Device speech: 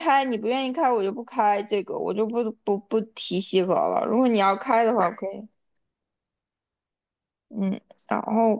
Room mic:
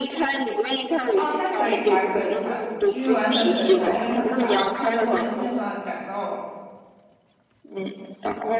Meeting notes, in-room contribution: present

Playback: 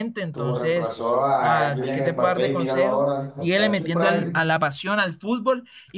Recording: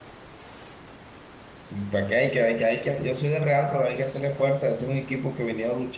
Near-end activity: present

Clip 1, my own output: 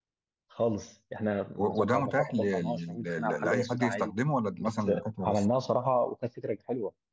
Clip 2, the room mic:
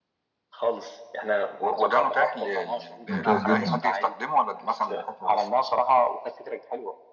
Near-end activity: present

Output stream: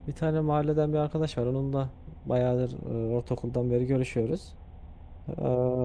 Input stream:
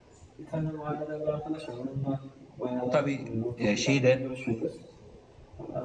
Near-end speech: present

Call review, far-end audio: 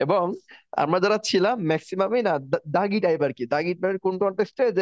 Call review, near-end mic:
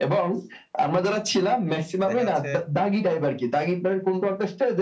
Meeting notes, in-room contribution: present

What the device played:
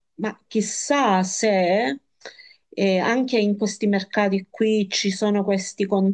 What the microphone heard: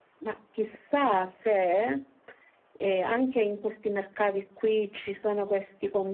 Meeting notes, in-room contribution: none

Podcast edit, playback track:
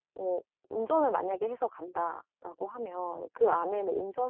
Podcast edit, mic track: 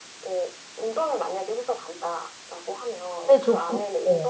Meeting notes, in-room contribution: present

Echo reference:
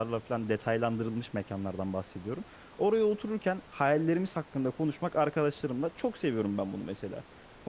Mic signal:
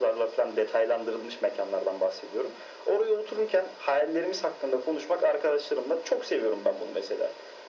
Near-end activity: none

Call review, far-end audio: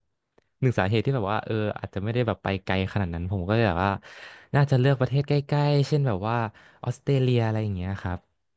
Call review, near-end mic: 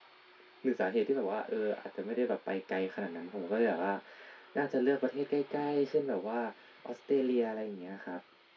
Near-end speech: none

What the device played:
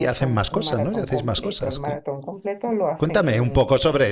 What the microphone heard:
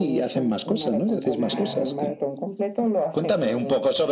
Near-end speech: present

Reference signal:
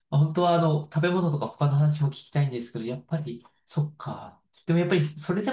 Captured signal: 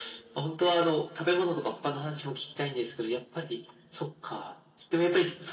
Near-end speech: none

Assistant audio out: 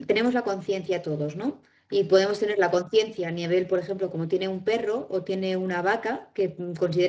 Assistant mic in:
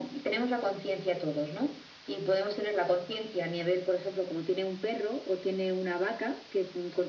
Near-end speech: none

